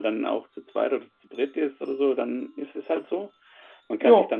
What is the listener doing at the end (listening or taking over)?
listening